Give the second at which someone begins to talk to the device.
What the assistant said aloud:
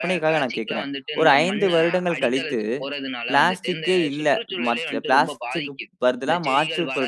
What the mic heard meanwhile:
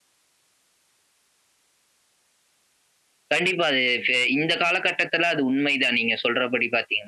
3.3 s

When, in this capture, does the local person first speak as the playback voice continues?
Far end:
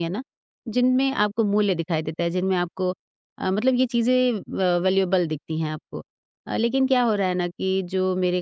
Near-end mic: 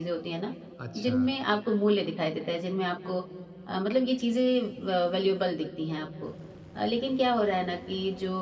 0.8 s

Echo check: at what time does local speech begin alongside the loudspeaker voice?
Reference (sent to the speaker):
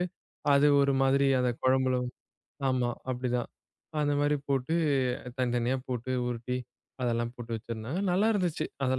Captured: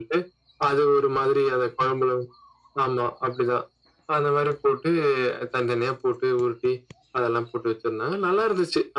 none

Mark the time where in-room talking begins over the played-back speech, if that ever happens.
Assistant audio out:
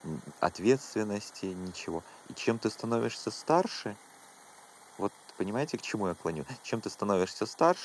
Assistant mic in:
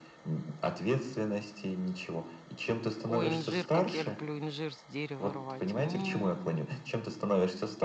3.0 s

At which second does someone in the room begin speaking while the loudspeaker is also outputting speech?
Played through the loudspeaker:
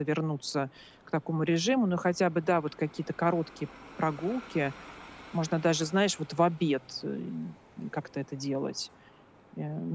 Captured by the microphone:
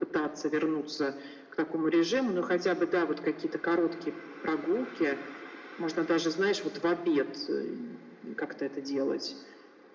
none

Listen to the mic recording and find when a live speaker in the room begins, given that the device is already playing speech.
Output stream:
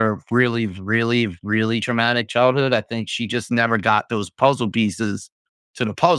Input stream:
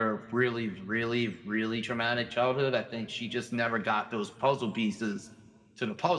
none

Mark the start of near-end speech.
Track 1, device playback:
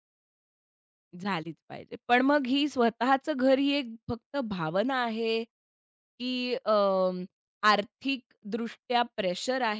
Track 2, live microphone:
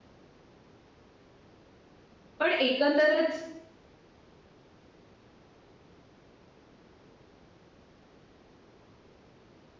2.4 s

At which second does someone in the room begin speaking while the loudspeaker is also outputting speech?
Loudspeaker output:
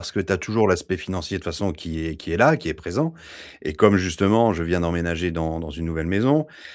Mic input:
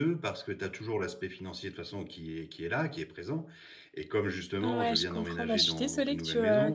4.6 s

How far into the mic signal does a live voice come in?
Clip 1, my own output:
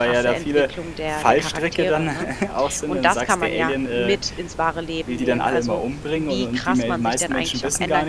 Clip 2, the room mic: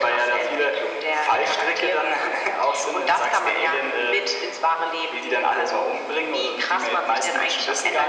none

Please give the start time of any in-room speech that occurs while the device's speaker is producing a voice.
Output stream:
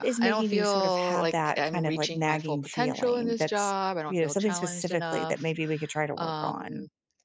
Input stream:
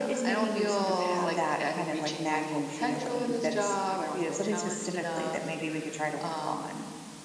none

